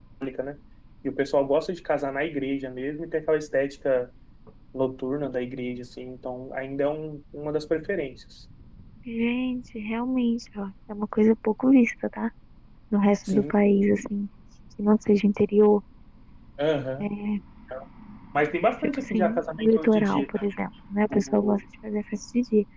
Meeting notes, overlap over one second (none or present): present